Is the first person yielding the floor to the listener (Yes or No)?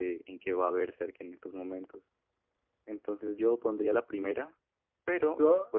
No